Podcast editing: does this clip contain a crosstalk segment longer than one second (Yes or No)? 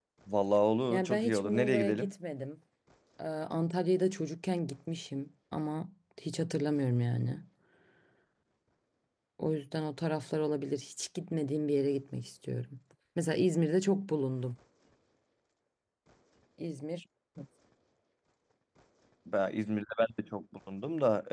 Yes